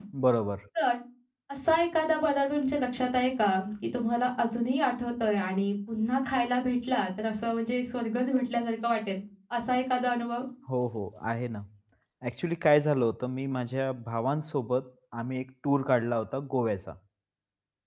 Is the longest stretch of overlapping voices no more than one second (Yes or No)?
Yes